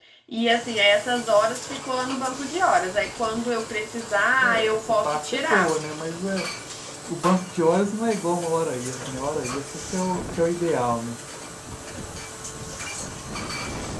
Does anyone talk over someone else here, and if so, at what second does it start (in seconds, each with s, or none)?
4.4 s